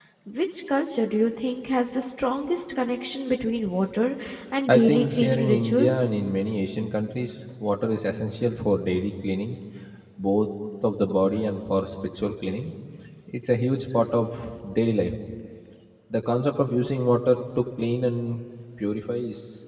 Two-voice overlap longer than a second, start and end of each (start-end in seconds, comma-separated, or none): 4.7-6.1